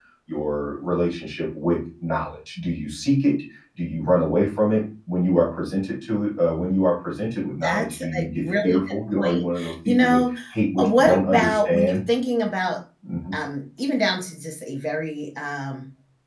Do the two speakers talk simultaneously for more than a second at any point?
Yes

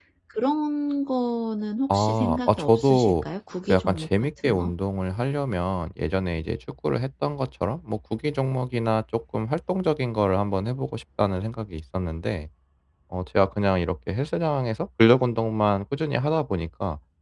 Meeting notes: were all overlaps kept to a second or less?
No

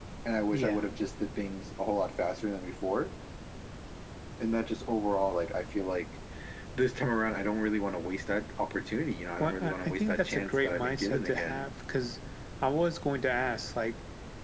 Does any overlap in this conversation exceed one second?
Yes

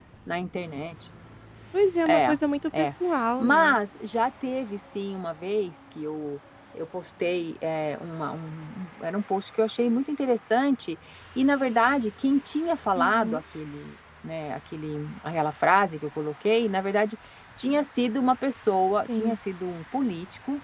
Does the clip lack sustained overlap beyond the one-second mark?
Yes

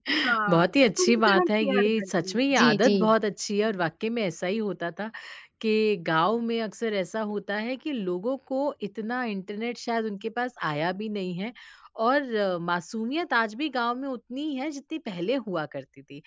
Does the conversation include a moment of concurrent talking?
Yes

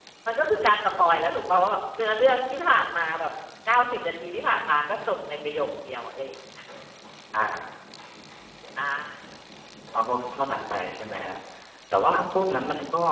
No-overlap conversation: Yes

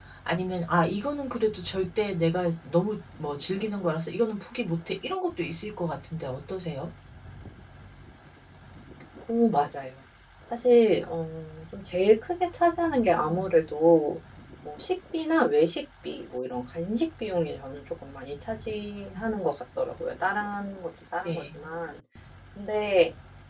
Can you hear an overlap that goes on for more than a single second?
No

